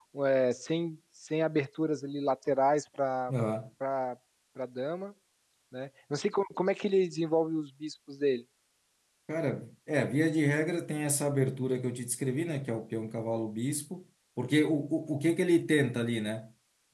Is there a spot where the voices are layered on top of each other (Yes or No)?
No